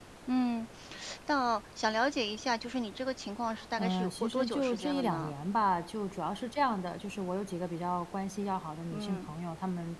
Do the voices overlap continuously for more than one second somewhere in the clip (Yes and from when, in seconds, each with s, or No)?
Yes, from 3.8 s